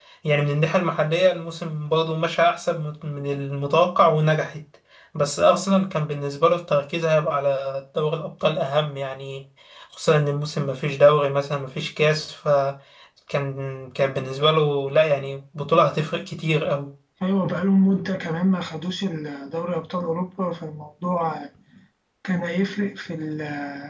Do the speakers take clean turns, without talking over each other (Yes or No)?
Yes